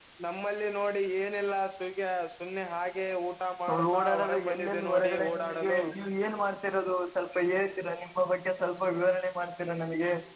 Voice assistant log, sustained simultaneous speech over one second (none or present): present